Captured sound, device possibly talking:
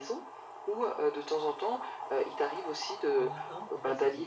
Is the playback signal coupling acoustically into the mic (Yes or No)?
Yes